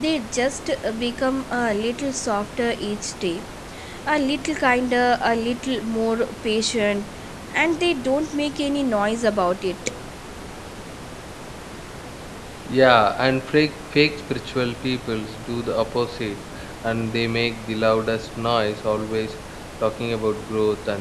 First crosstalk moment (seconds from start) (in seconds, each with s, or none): none